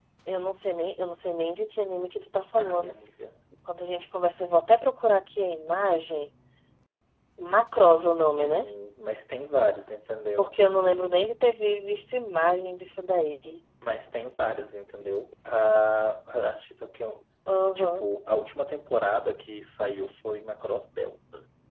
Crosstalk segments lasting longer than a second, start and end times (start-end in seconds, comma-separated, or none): none